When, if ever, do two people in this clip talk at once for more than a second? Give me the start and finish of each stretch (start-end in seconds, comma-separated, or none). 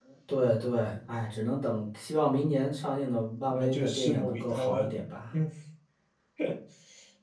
3.5-4.9